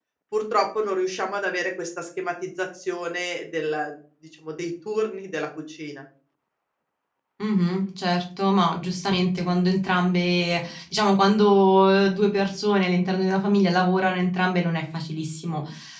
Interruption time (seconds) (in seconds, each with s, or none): none